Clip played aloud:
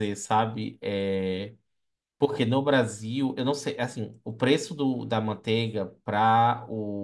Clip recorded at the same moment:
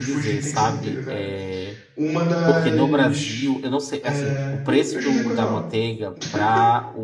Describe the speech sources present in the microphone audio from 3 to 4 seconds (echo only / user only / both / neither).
both